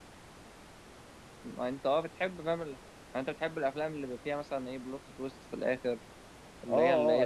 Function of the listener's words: taking over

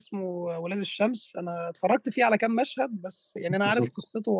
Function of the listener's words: listening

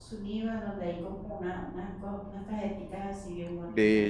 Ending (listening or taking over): taking over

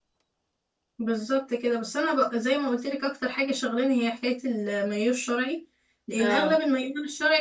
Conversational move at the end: listening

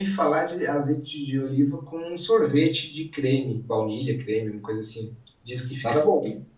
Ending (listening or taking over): taking over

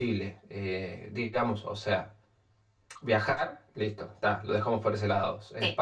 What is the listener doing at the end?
listening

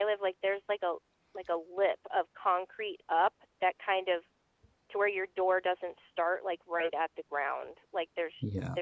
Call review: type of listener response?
listening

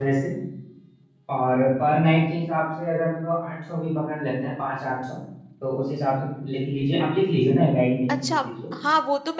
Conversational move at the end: taking over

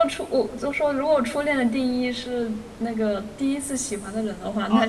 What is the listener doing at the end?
taking over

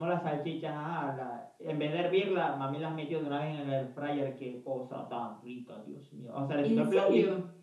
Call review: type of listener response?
listening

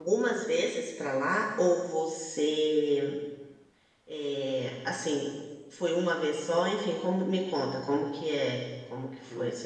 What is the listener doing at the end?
taking over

